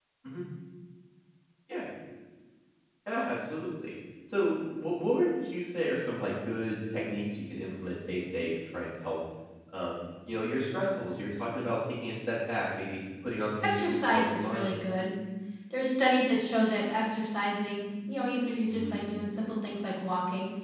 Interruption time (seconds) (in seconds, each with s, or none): 13.6 s